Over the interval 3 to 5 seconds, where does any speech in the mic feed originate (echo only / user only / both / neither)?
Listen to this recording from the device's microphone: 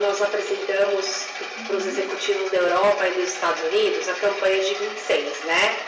echo only